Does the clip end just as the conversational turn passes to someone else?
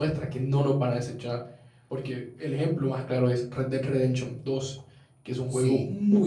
No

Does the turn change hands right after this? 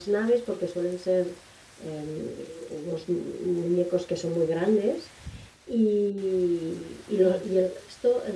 No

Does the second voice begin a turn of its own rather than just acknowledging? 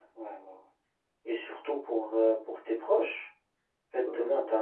No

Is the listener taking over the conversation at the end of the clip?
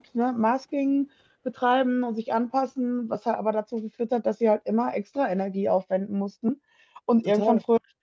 No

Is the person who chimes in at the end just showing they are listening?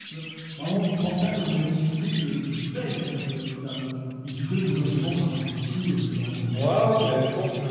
No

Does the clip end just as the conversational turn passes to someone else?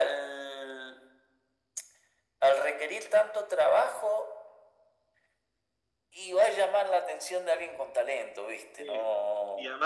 Yes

